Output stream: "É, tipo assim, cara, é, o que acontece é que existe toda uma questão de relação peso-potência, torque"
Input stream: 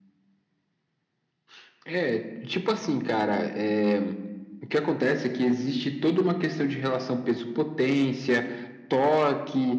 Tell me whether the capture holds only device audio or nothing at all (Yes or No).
Yes